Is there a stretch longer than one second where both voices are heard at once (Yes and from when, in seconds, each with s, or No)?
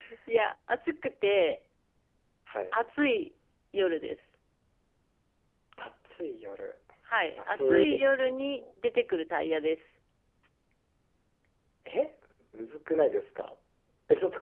Yes, from 7.3 s